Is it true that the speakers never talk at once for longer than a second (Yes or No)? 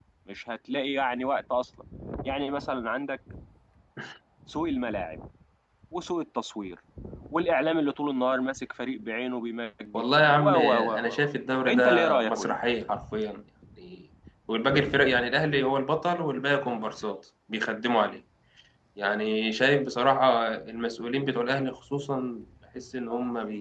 No